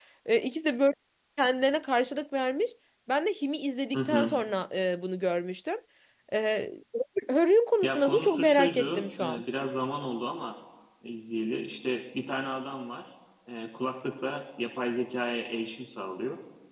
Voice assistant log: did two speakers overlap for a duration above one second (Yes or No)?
Yes